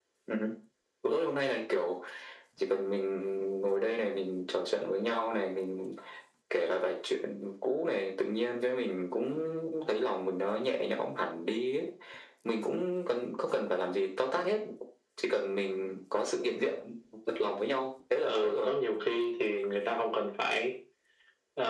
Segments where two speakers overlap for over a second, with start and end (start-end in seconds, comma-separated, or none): none